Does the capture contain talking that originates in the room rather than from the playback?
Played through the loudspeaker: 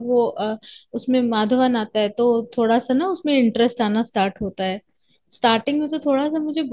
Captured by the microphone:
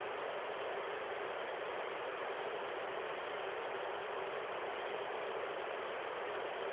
No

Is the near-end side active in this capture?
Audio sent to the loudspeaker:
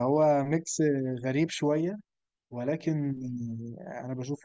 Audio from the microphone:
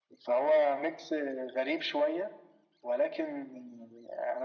No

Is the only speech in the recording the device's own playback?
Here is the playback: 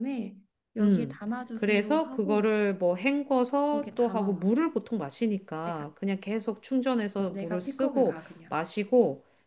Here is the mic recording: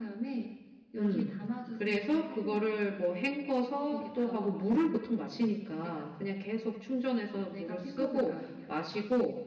Yes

